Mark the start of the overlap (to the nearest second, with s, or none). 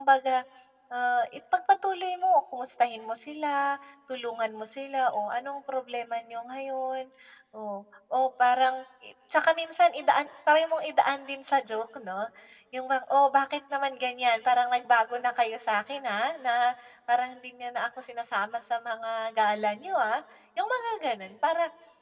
none